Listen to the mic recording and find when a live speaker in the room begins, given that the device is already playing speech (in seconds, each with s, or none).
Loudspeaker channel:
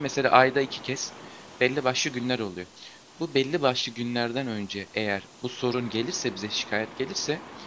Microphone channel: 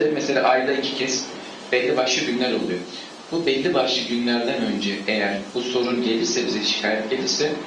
none